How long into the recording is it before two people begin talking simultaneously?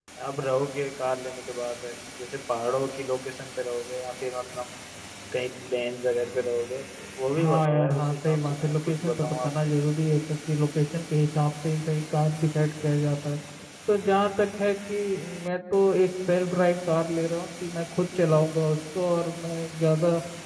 7.4 s

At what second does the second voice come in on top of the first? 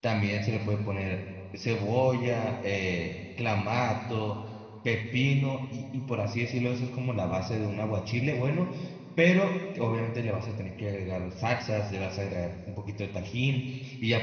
none

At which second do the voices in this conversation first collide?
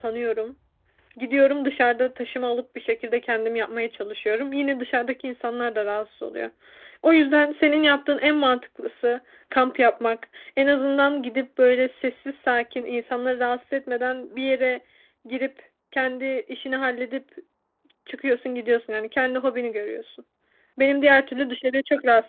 none

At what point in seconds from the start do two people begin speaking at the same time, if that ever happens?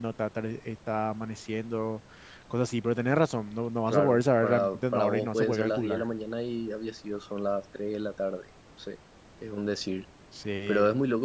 3.9 s

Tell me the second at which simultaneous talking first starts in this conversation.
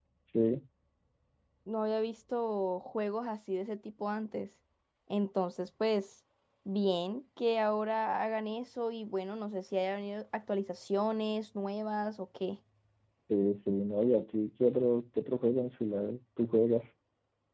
none

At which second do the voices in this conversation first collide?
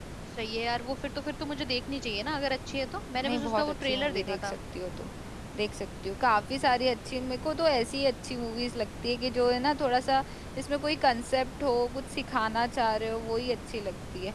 3.1 s

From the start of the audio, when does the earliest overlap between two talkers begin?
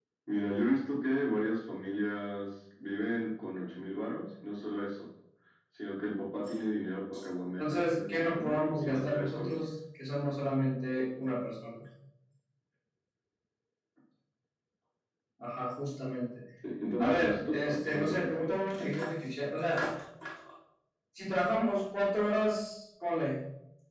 7.6 s

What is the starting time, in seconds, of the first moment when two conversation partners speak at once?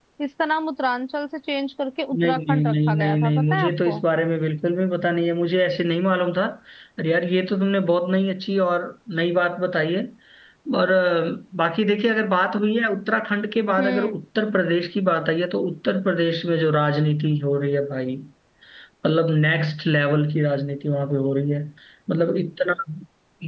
2.2 s

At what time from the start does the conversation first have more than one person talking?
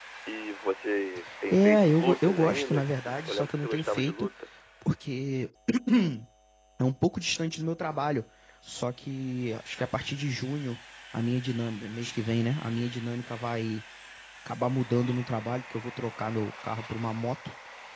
1.3 s

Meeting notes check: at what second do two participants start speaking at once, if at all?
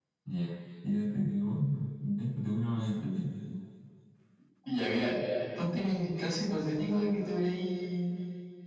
none

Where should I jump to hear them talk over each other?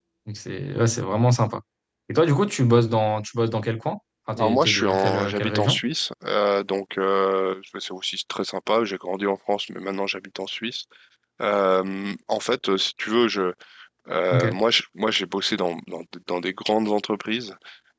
4.3 s

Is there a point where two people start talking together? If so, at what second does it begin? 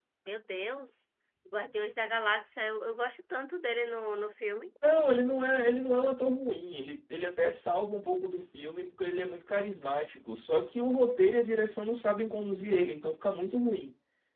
none

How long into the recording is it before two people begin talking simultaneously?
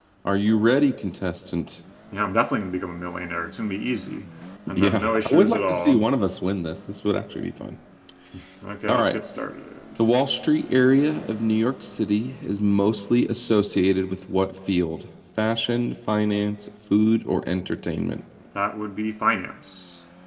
4.8 s

